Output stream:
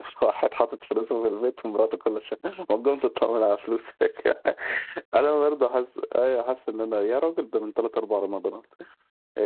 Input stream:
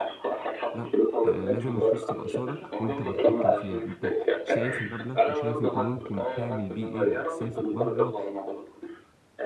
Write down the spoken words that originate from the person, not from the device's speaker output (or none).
لا آه، لازم الفلوس تبقى صادق وانت متحكم فيها انت شايف المبلغ وشايف انت ممكن تعمل بيه ايه بقى تسافر بره